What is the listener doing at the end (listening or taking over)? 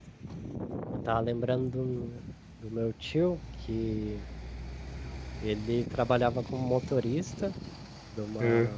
listening